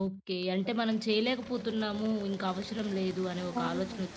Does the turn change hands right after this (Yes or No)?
Yes